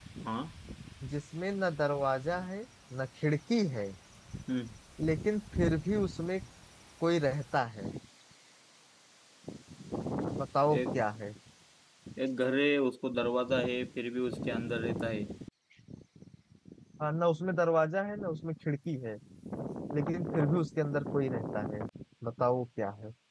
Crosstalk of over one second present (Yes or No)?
No